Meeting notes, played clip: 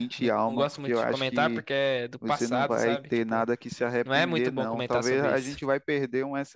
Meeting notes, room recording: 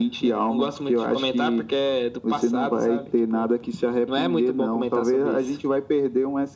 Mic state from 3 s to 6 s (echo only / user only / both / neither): echo only